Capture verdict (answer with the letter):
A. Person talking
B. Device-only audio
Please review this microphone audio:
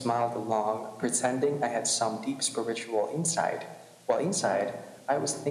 B